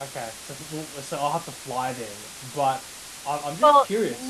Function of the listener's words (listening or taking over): taking over